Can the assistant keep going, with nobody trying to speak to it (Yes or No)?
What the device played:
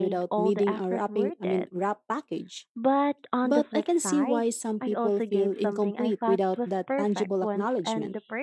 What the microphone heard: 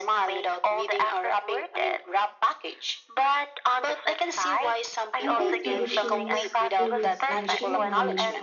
No